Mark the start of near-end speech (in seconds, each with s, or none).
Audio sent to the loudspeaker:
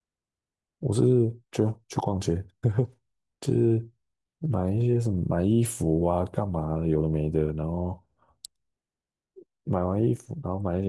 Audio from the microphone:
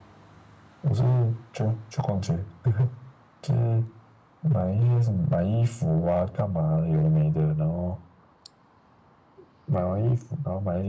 none